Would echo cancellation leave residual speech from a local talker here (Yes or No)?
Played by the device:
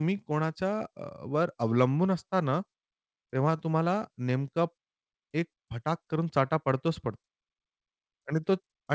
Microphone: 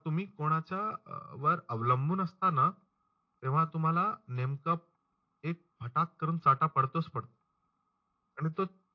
No